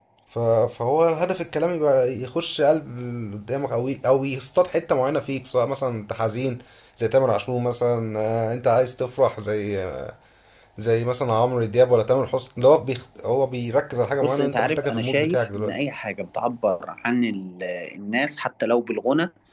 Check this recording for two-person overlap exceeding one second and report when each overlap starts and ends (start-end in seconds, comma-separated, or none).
14.2-15.7